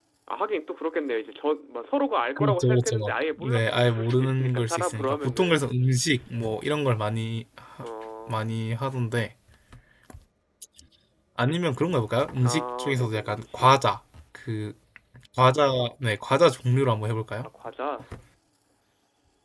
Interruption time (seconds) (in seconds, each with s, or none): 2.4 s